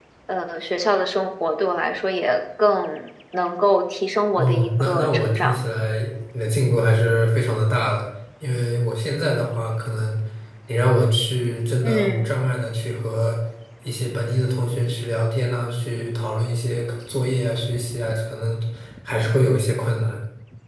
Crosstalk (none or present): present